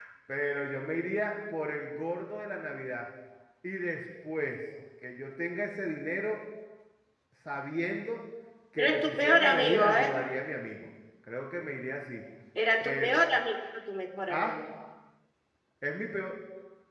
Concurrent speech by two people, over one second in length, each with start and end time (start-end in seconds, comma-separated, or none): 8.8-10.1